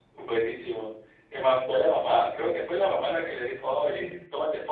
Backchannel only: Yes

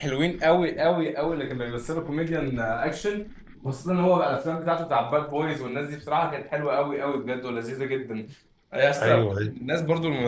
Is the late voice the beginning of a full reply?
No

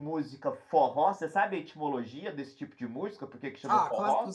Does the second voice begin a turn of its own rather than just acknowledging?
Yes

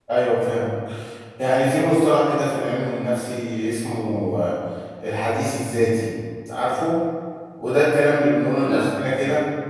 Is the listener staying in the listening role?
Yes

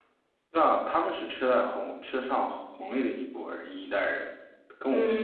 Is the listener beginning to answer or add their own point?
Yes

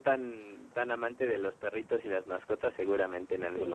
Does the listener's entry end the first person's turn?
Yes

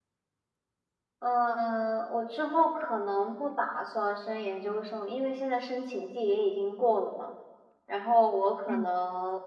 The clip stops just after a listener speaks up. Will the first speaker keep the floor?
Yes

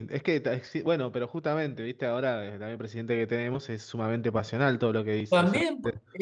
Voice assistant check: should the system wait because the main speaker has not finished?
No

